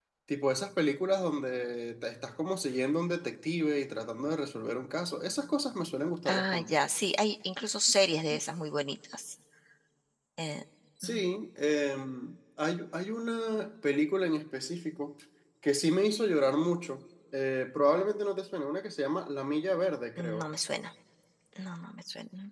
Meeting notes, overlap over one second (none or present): none